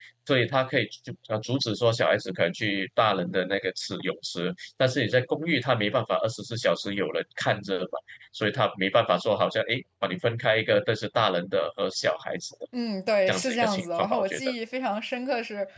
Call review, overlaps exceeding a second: present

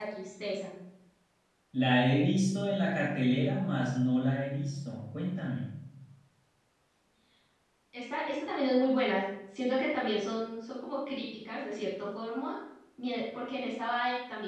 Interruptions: none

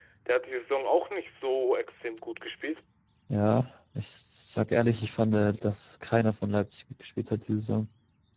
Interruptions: none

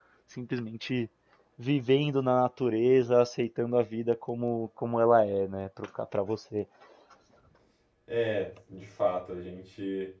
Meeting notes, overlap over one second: none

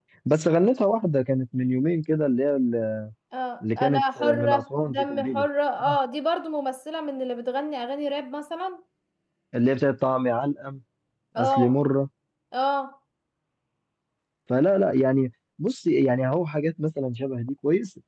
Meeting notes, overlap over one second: present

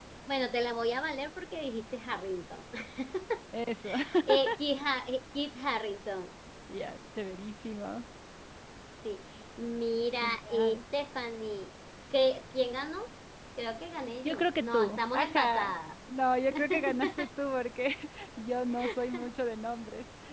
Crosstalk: present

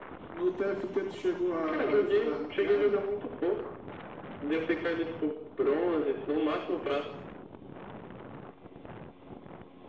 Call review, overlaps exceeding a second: present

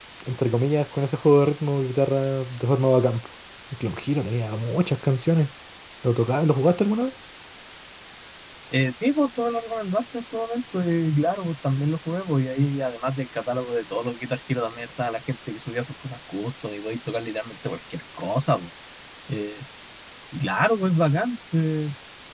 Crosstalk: none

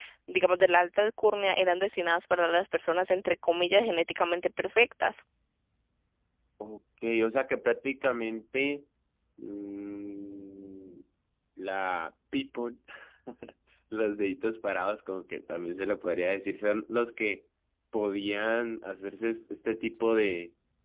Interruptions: none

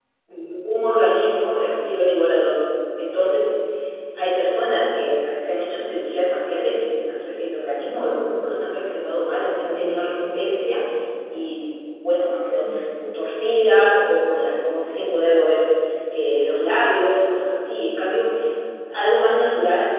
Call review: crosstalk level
present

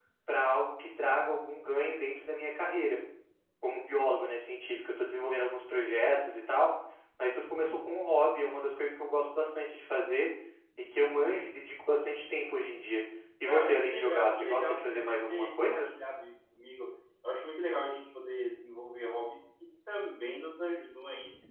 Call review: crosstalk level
present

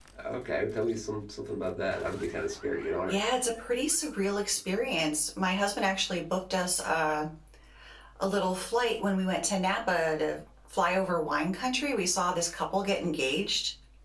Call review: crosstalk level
none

